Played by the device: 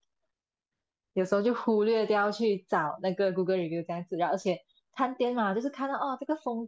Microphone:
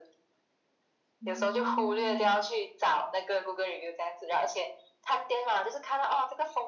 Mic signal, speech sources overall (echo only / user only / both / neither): both